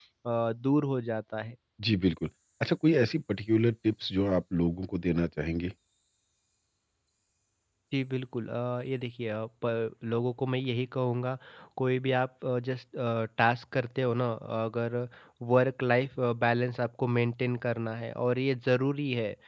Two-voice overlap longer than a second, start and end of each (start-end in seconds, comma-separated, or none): none